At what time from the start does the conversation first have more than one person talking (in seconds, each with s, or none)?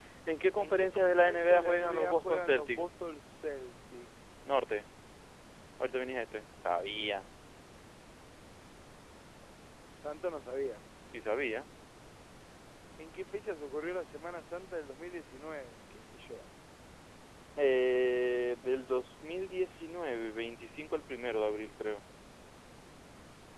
0.6 s